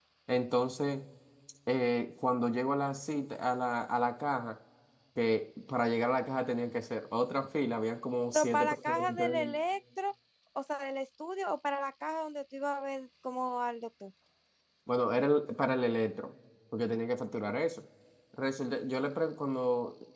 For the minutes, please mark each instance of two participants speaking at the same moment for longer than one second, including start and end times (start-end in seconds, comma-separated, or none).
8.3-9.6